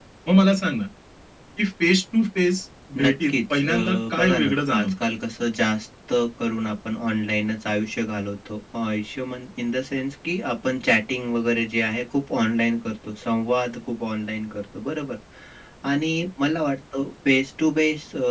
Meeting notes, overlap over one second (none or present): present